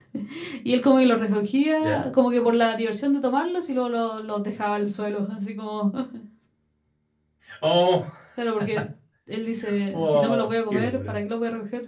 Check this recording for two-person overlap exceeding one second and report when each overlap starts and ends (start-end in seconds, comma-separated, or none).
9.9-11.2